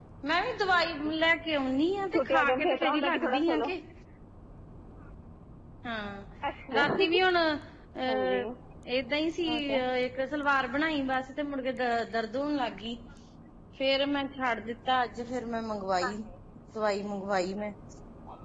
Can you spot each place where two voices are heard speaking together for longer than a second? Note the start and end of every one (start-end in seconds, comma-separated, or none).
2.1-3.7